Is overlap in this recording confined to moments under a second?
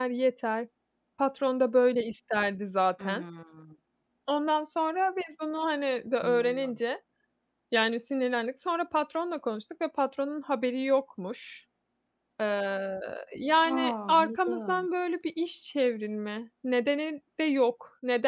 No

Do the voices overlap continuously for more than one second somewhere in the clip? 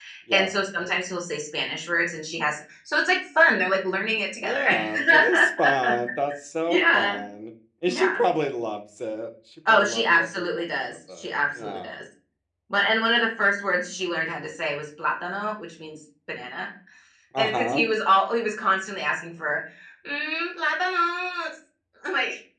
Yes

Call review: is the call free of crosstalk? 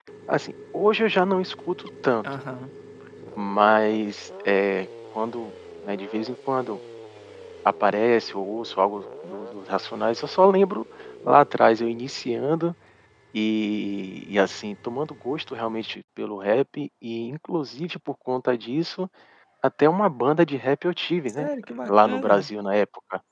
No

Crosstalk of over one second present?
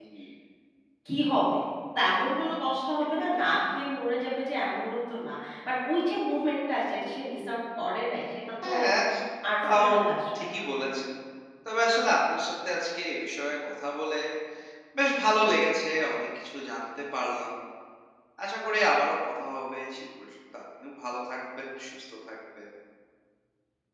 No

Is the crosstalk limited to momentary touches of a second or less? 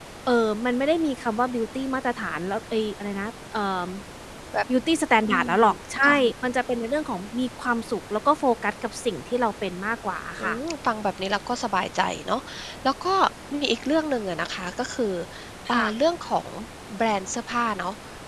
Yes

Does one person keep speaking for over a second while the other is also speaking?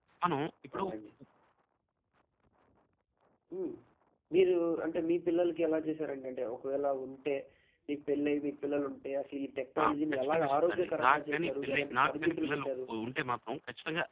Yes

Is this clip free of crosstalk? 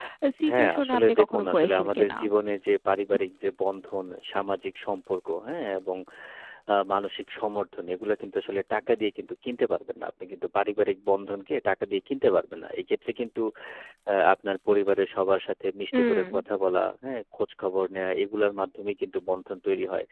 No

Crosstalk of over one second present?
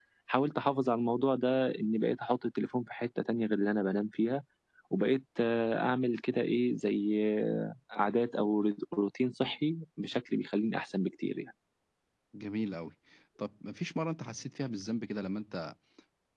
No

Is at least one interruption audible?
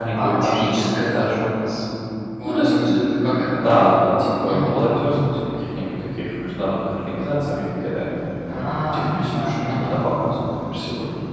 Yes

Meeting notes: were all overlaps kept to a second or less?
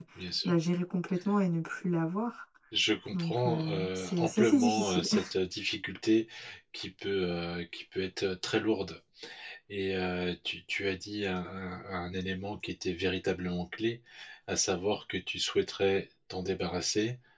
No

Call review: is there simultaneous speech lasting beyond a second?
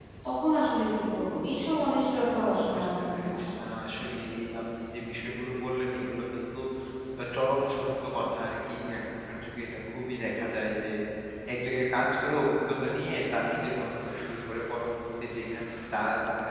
Yes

